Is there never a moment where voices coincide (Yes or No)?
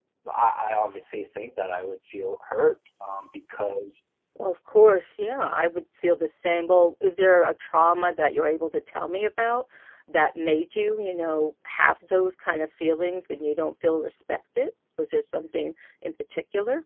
Yes